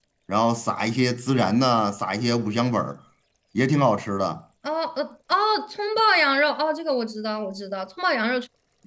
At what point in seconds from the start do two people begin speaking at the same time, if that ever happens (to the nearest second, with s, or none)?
none